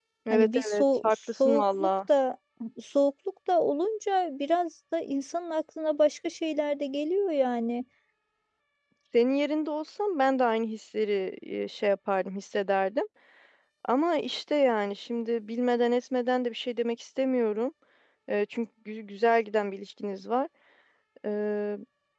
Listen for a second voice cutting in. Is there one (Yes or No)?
Yes